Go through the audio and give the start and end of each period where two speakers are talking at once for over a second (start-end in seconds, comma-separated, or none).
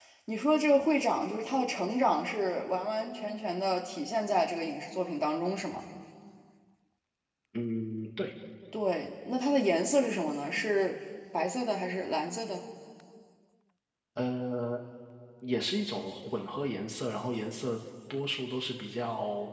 none